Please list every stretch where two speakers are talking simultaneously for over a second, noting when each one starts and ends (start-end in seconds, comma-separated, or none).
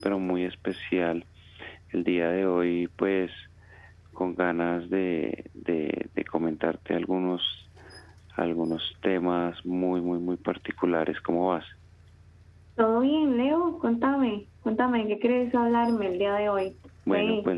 none